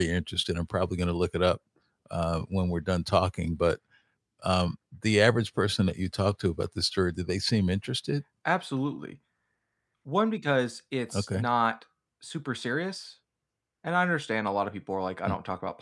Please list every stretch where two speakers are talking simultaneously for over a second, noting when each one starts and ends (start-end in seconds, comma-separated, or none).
none